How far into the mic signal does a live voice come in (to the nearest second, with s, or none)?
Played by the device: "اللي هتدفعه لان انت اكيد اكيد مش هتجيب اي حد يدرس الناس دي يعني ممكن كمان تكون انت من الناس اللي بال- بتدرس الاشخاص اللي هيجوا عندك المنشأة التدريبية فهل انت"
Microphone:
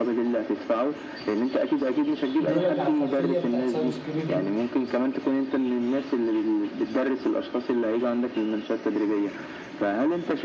2 s